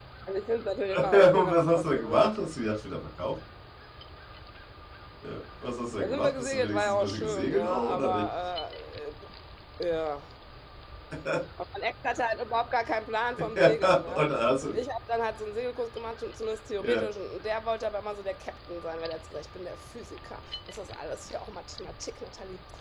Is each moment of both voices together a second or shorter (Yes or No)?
No